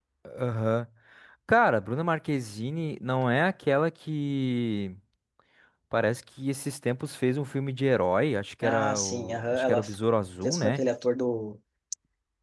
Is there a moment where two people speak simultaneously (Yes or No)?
Yes